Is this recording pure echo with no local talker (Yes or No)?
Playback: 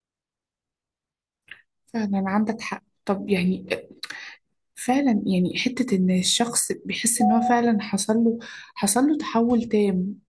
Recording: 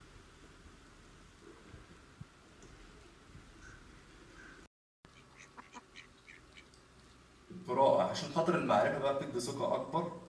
No